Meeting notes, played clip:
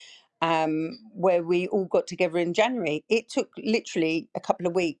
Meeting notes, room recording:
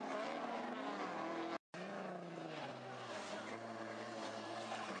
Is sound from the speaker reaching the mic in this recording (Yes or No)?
No